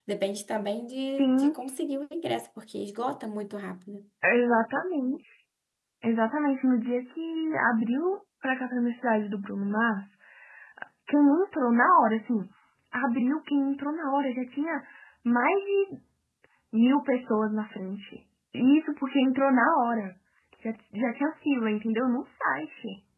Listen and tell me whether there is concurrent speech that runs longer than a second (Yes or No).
No